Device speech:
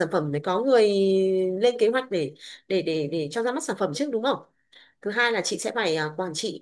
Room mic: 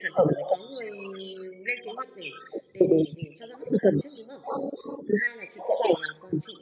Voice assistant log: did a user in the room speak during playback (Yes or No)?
No